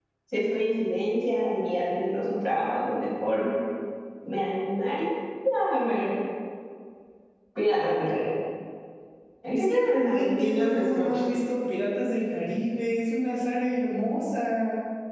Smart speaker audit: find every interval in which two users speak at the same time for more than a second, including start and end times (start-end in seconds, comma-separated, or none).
9.6-11.2